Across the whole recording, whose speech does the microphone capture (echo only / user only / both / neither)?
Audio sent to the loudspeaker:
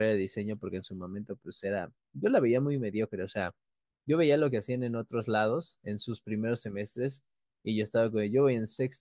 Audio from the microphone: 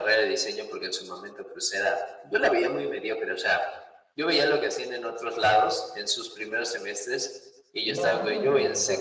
both